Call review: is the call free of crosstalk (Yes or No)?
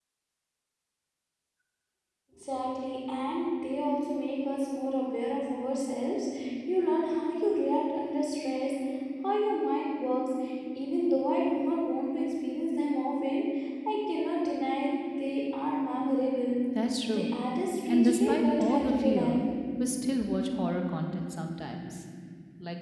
No